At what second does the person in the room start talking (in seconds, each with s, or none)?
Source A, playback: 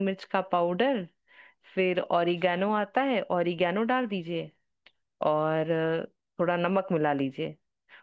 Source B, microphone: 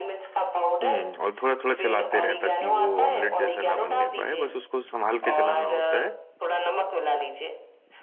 0.8 s